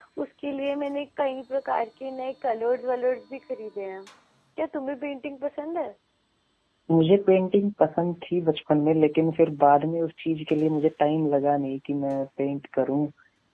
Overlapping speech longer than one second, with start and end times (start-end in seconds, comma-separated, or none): none